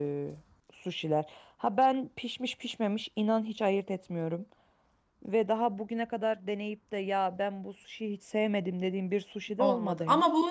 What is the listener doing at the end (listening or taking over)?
taking over